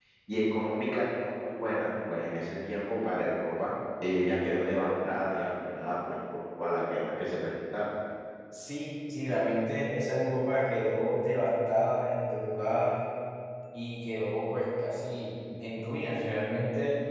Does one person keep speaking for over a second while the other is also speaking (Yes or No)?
No